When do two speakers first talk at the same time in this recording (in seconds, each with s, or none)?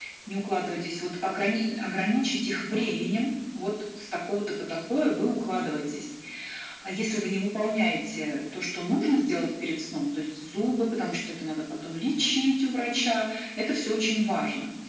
none